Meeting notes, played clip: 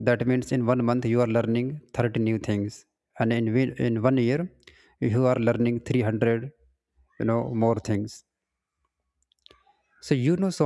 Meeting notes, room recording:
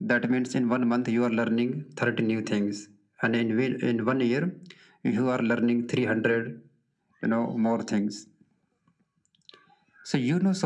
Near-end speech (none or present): none